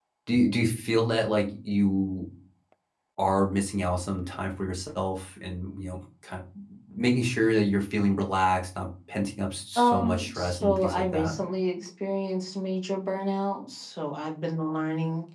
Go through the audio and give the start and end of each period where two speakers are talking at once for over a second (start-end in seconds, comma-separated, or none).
9.8-11.3